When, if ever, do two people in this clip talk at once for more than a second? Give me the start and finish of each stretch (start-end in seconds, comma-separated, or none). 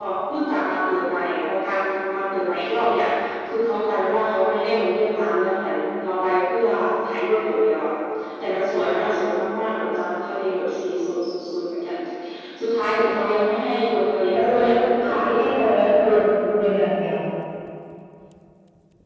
14.3-15.8